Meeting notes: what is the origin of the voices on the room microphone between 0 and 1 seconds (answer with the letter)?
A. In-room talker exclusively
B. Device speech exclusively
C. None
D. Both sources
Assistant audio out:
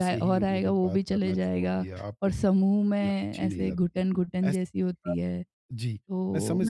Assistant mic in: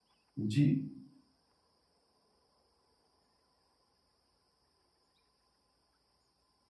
A